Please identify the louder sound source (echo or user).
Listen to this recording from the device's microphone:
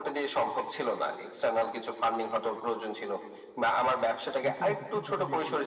echo